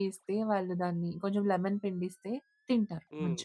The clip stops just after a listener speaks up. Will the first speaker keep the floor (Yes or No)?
No